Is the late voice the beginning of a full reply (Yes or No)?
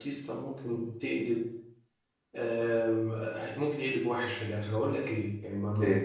No